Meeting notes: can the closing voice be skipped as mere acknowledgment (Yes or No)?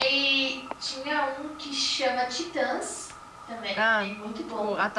No